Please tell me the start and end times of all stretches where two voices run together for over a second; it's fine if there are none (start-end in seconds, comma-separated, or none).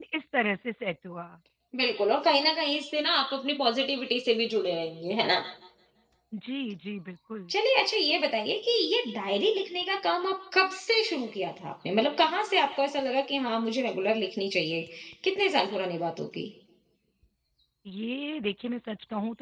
none